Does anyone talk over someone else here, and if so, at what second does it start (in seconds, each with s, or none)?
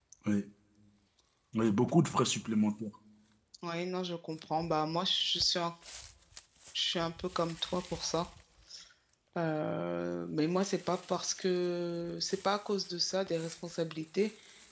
none